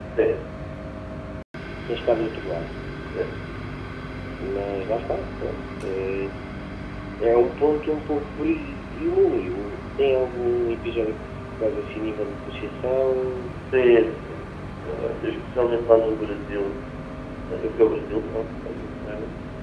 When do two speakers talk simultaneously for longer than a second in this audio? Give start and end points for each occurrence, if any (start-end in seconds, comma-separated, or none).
none